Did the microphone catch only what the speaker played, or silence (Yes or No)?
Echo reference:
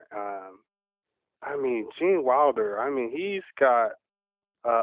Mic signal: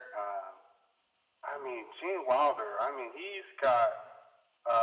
Yes